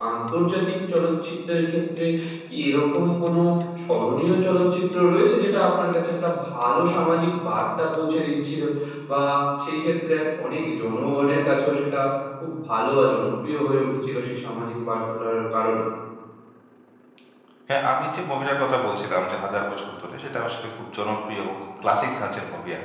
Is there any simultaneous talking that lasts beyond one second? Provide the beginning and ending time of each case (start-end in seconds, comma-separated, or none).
none